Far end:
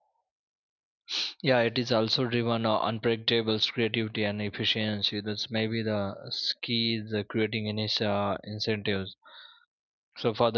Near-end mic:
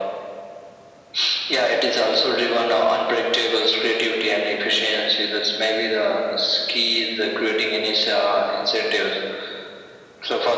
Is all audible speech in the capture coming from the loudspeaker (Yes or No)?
Yes